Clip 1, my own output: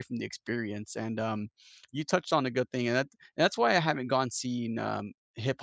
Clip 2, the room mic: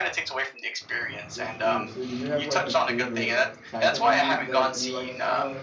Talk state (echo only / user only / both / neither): both